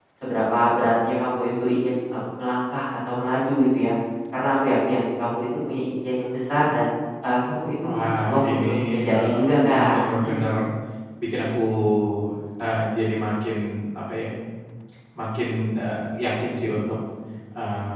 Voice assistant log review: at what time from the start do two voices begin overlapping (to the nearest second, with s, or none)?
8 s